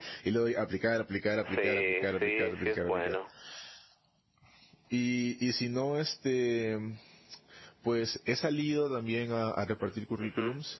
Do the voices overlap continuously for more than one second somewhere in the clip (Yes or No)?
Yes